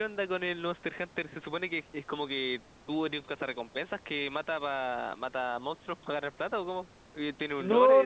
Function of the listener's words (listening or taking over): taking over